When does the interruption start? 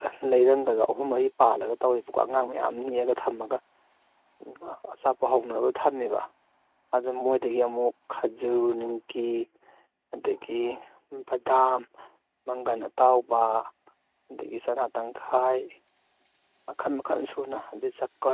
none

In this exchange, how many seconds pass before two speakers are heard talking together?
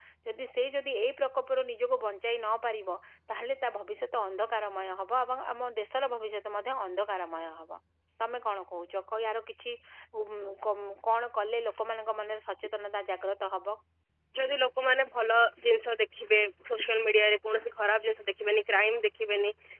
none

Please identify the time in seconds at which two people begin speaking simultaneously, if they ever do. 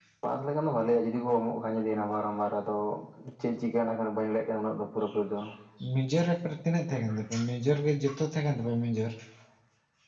none

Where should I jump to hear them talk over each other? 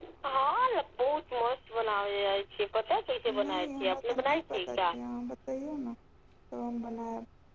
3 s

